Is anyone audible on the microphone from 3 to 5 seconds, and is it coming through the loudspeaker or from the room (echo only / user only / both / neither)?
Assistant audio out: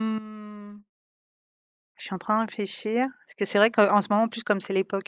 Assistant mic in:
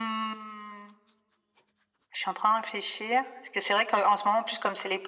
echo only